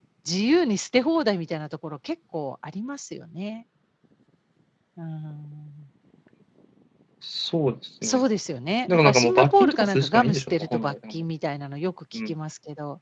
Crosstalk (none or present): present